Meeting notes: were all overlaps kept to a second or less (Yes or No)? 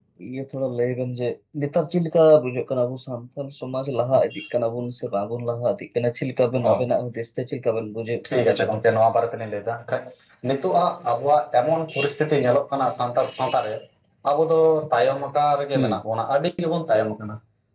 Yes